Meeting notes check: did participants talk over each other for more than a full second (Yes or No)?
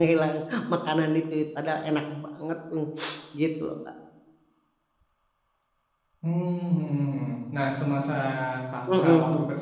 No